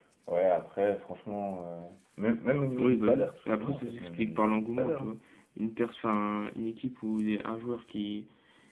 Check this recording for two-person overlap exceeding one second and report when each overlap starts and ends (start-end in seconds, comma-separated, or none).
2.8-5.1